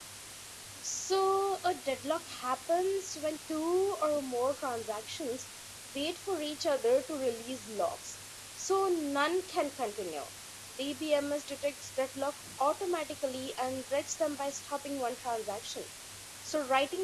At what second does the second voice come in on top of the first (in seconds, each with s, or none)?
none